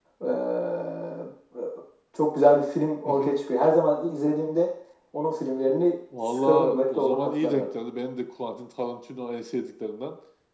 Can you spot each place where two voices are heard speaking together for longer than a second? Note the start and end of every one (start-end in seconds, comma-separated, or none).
6.2-7.7